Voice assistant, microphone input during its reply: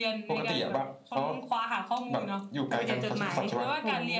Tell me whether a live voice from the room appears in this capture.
Yes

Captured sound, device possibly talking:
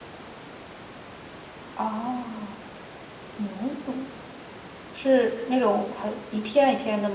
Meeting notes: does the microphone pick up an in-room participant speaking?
Yes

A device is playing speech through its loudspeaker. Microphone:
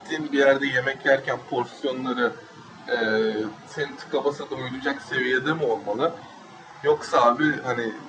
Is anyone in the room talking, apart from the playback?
No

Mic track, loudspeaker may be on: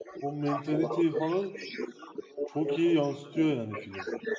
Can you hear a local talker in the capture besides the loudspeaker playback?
Yes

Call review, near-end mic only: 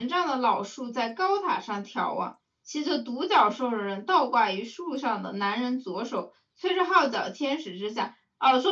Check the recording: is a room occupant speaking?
Yes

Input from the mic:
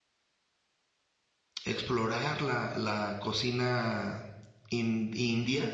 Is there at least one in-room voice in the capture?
Yes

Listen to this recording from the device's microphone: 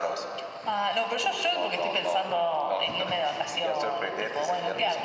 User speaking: No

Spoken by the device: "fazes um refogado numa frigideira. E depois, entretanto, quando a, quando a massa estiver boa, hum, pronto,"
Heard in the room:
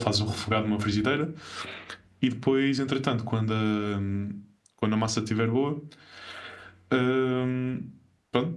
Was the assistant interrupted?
No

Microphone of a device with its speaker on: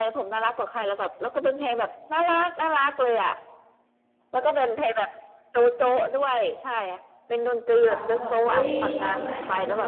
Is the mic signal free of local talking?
No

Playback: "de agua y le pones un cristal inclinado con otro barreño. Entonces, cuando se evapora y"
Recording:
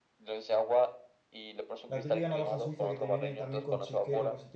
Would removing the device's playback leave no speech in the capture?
No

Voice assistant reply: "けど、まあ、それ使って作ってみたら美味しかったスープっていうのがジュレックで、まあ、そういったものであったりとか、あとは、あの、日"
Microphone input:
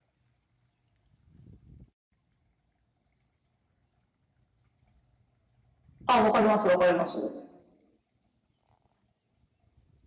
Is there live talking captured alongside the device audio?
Yes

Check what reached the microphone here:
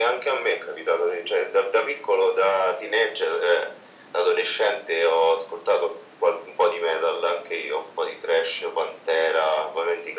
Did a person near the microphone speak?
No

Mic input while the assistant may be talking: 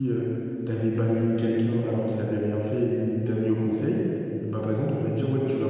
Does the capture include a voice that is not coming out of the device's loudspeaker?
Yes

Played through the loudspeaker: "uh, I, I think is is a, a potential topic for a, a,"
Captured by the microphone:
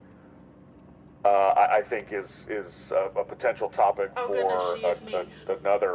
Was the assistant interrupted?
Yes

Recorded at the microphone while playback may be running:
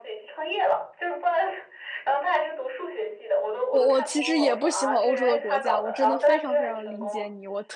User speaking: Yes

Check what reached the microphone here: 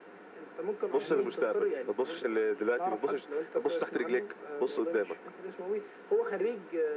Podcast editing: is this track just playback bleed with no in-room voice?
No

